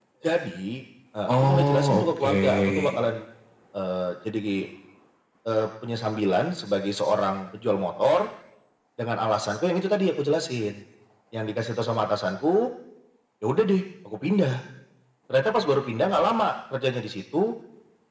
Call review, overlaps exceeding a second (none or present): present